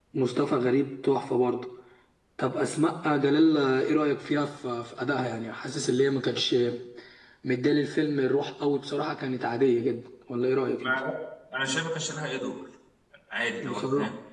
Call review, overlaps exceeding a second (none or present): none